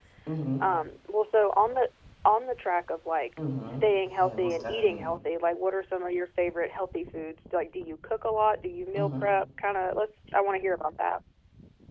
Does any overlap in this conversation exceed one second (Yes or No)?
Yes